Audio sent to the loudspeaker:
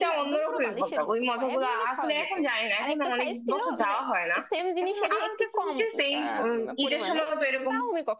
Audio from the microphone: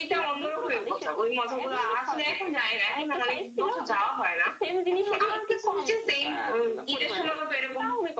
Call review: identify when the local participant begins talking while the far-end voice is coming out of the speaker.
none

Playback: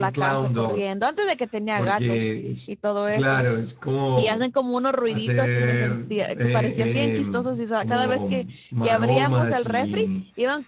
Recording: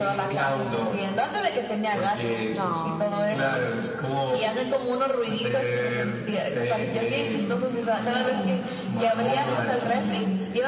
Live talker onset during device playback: 3 s

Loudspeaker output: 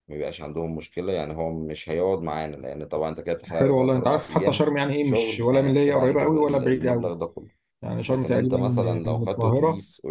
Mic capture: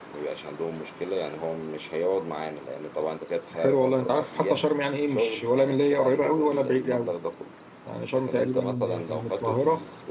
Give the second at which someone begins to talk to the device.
none

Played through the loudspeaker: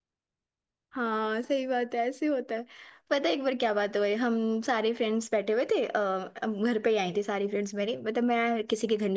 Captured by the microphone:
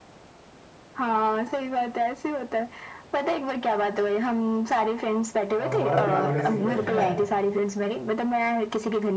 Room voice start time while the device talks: 6 s

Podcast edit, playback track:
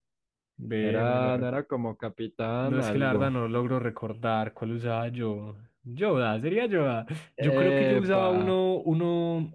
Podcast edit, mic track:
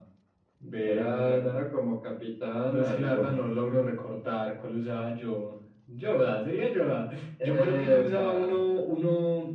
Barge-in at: none

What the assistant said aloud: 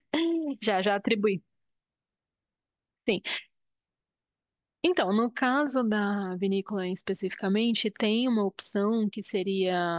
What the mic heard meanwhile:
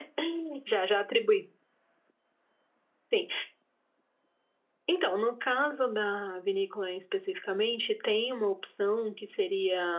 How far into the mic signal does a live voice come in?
none

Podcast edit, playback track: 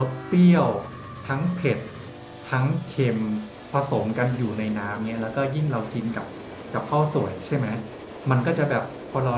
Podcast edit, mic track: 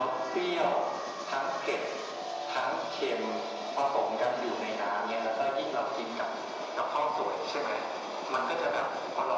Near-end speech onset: none

